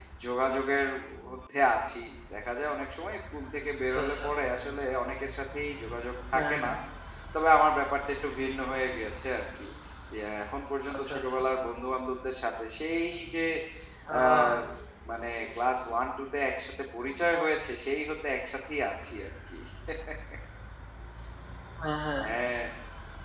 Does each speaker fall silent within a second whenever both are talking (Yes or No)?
Yes